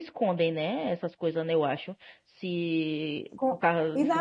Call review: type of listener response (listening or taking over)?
taking over